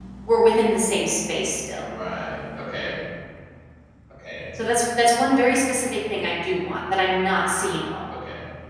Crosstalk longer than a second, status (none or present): none